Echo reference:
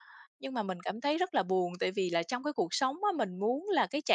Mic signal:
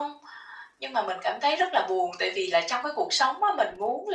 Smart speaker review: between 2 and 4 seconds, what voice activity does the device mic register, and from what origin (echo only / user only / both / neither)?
echo only